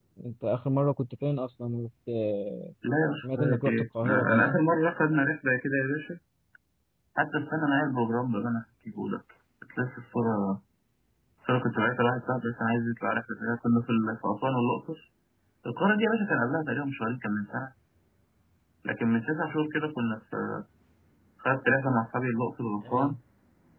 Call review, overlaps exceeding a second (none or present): present